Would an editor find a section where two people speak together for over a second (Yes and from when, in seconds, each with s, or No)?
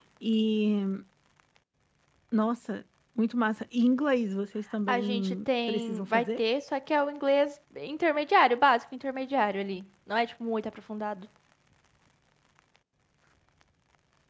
Yes, from 4.9 s